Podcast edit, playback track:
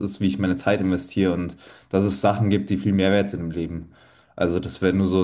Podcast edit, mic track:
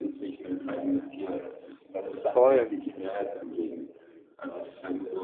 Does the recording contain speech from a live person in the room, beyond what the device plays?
Yes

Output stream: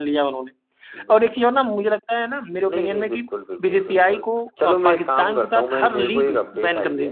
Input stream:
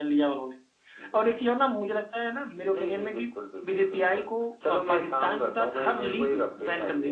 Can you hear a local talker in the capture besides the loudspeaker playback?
No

